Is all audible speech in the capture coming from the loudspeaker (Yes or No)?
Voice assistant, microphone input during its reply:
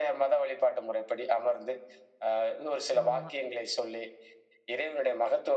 No